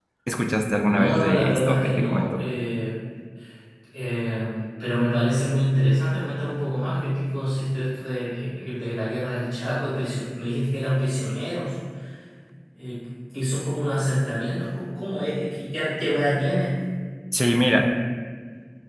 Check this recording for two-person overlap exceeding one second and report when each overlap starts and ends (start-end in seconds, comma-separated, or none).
0.8-2.4